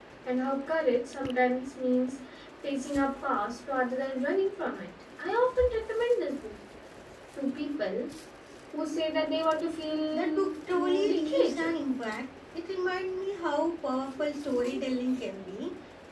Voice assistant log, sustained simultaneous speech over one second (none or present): present